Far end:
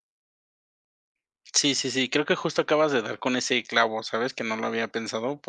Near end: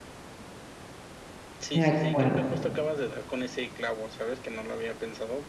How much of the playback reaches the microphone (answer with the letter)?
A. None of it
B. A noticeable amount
B